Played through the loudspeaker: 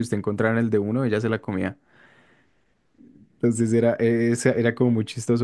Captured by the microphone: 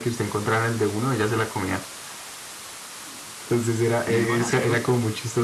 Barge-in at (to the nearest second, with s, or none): 4 s